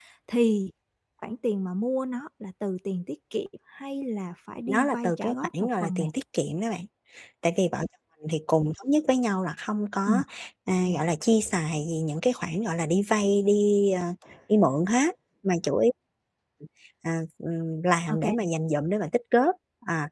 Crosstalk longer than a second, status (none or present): present